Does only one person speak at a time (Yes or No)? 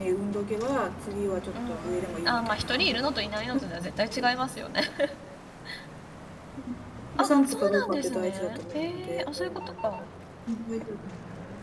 No